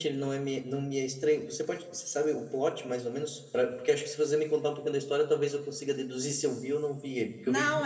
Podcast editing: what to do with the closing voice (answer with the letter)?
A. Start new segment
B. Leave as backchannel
A